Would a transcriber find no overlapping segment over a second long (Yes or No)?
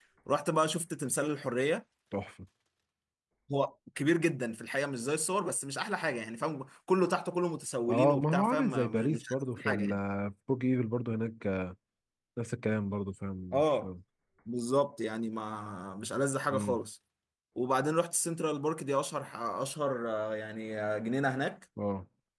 No